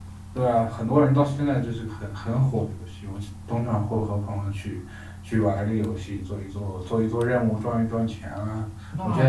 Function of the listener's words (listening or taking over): taking over